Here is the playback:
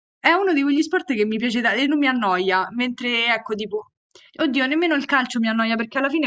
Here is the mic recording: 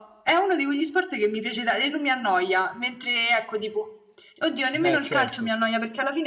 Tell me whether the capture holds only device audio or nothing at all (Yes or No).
No